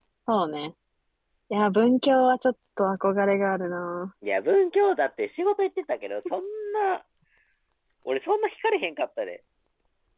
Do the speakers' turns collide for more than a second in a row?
No

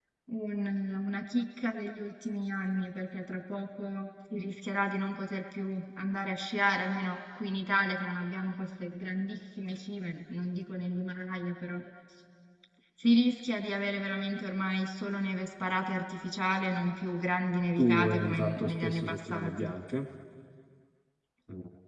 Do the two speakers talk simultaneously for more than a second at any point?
Yes, from 17.8 s

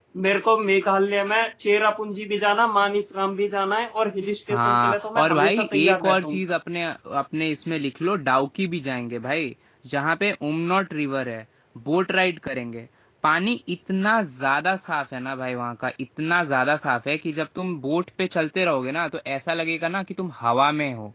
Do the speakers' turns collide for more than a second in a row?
Yes, from 4.5 s

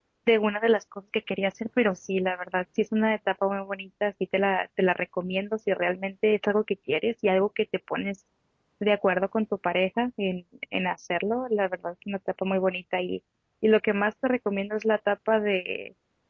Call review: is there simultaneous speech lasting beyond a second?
No

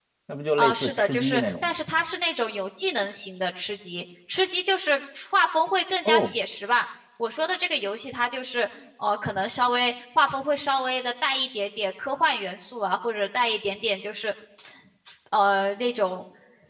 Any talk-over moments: Yes, from 0.6 s

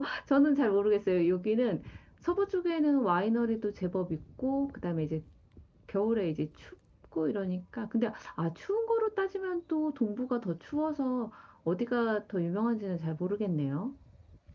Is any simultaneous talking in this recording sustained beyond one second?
No

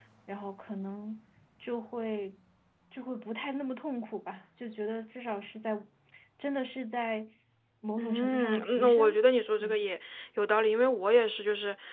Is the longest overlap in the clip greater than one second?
Yes, from 8.0 s

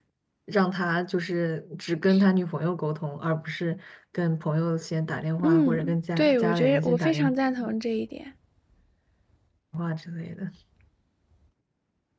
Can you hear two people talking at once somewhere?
Yes, from 5.4 s

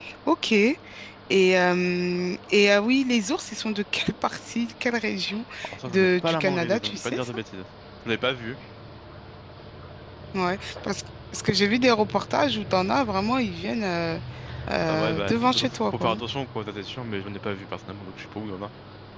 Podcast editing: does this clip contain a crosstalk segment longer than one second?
Yes, from 5.9 s

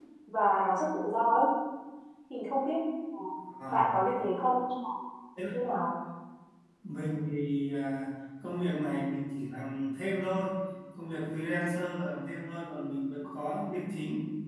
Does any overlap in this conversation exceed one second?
No

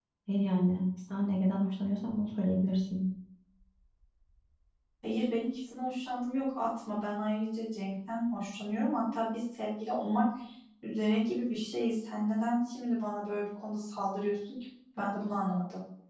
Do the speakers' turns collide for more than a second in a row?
No

